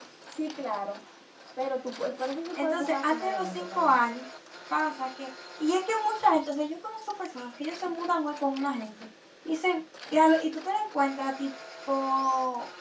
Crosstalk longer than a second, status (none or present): present